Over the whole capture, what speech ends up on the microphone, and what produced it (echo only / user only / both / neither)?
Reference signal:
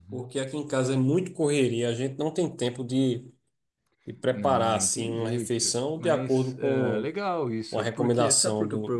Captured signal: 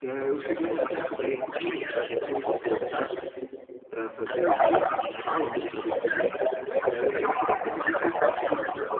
both